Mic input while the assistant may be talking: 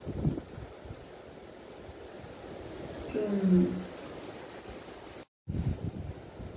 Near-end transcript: 좀

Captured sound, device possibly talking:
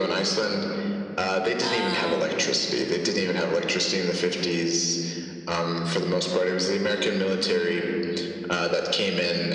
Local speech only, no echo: Um,

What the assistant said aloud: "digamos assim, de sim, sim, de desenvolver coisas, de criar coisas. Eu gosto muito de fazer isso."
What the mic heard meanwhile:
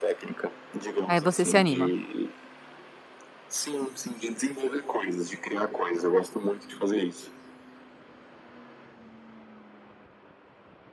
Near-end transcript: Aí você se anima.

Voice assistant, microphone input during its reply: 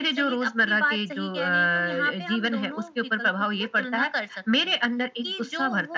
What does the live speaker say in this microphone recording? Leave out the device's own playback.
none

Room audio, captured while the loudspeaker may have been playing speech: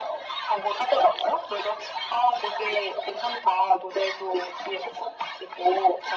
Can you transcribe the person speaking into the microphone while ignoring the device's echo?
none

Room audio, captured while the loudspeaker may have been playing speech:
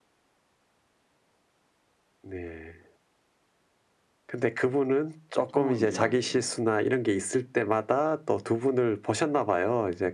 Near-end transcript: 보통은 이제 그

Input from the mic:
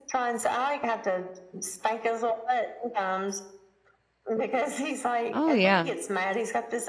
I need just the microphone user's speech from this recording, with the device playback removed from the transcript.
Oh, yeah.

